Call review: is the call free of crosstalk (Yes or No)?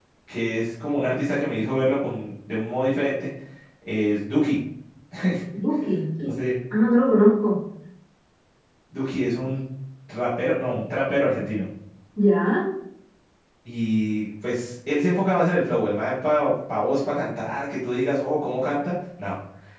Yes